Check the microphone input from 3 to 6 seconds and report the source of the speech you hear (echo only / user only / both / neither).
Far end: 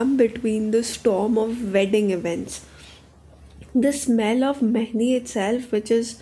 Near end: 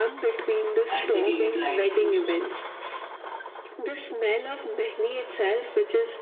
echo only